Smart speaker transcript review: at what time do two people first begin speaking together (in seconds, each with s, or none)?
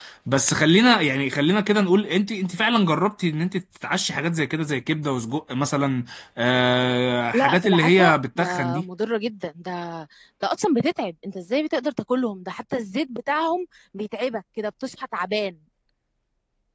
7.3 s